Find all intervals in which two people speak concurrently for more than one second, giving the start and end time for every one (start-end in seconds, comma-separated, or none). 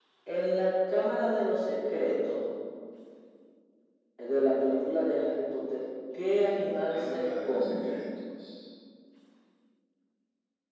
6.4-8.0